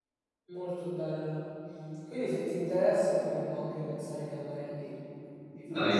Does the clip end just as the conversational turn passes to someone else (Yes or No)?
Yes